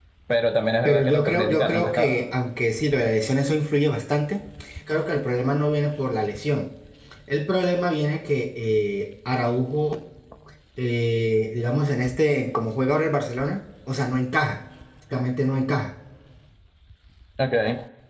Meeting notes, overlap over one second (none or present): present